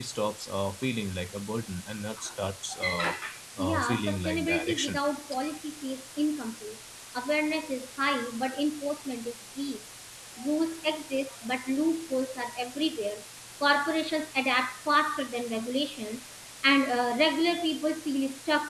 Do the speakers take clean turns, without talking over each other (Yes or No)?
No